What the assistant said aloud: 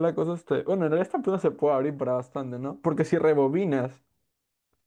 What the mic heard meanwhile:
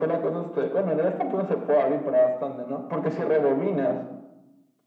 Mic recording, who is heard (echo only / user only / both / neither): echo only